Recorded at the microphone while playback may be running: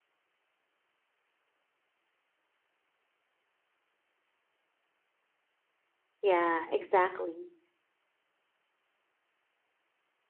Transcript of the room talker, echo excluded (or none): Yeah, exactly.